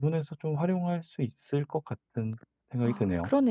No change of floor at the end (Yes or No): No